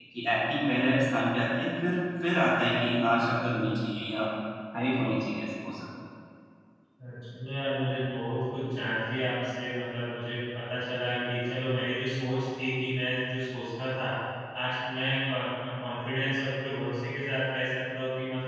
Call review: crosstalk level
none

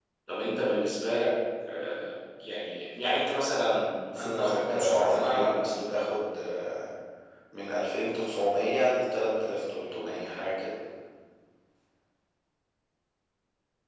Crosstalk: present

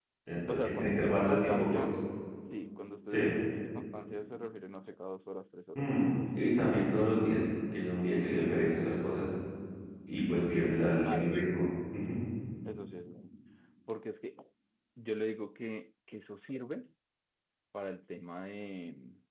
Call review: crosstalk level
present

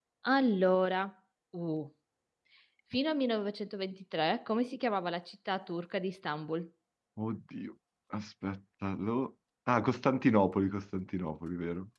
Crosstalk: none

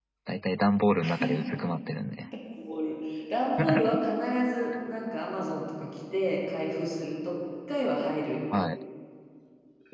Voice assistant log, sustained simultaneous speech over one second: none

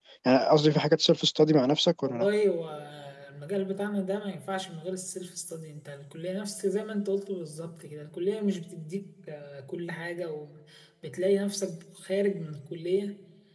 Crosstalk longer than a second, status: none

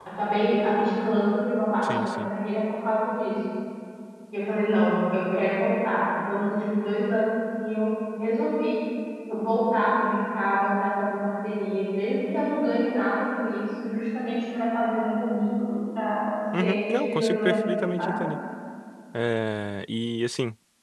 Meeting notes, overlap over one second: present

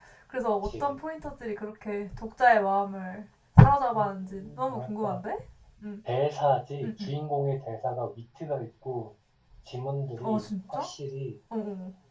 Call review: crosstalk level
present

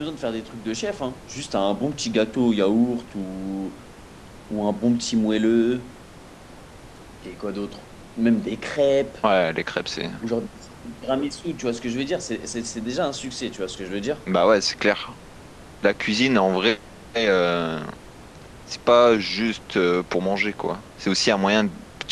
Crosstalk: none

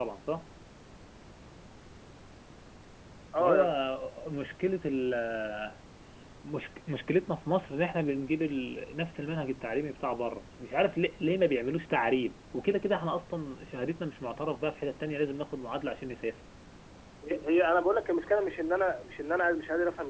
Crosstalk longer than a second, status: none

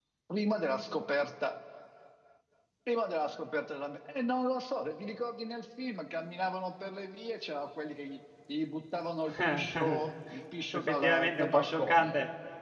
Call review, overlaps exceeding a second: present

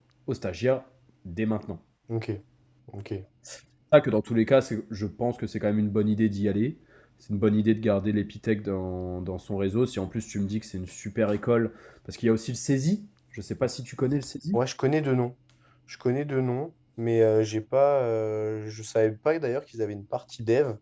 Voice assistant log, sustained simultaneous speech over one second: none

